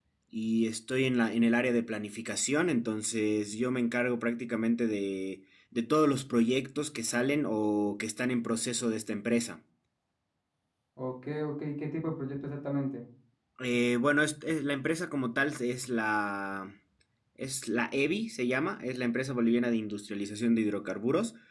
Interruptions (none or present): none